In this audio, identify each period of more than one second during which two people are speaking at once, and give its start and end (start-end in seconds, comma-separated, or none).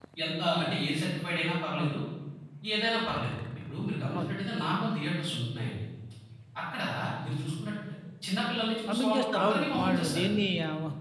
8.9-10.3